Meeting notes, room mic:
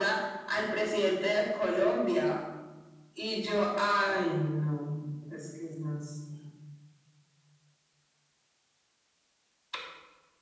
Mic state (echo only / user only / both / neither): echo only